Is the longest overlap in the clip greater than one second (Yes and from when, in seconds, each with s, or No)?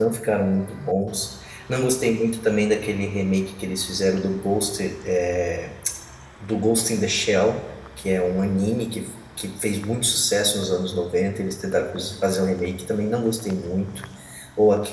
No